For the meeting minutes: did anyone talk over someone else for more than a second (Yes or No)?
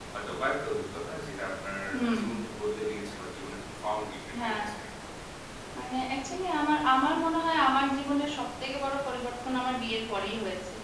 No